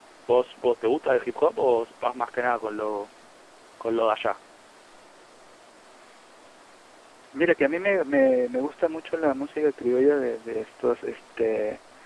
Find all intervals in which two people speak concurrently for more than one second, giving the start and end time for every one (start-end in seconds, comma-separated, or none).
none